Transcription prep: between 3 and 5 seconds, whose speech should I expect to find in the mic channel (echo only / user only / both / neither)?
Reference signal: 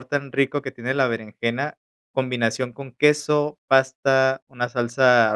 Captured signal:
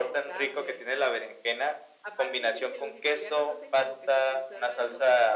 both